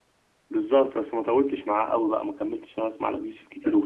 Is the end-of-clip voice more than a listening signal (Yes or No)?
Yes